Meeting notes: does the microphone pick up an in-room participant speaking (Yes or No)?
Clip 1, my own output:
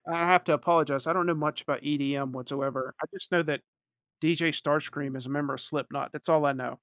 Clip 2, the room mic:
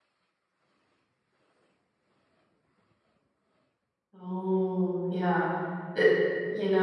Yes